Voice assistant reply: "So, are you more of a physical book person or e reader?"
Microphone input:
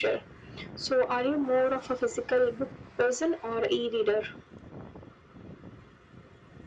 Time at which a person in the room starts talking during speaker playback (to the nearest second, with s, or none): none